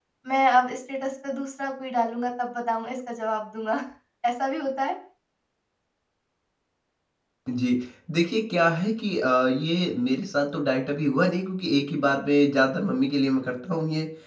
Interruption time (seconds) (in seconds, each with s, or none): none